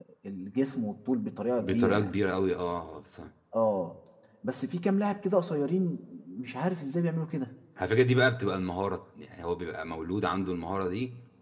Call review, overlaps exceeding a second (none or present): none